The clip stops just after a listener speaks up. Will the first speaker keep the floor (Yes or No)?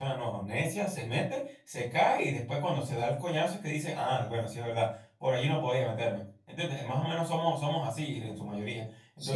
No